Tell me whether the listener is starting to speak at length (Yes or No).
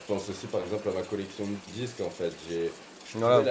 No